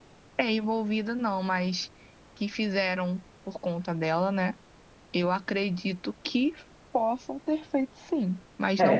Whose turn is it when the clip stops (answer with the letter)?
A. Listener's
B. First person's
A